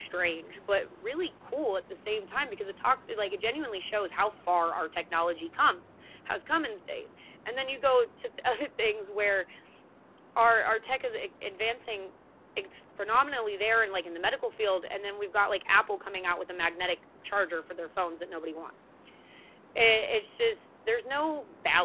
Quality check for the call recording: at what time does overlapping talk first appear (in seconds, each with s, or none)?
none